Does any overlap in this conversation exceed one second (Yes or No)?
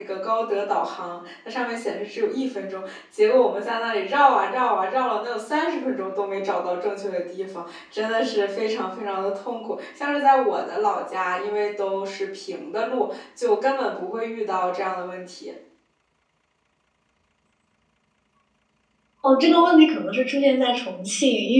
No